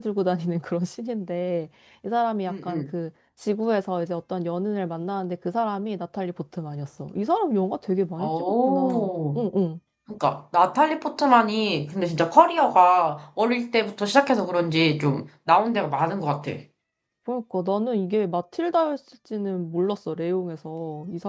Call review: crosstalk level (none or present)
present